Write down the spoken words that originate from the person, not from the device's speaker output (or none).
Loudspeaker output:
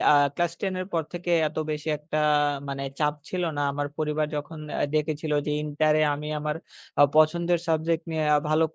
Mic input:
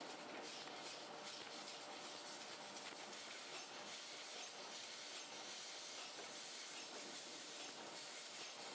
none